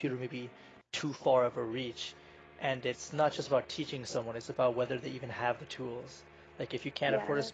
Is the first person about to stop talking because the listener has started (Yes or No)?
No